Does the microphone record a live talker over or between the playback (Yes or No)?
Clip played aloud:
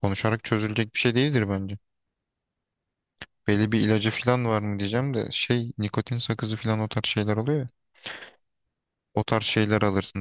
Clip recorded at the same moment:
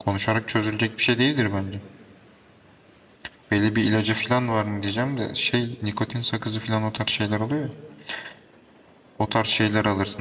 No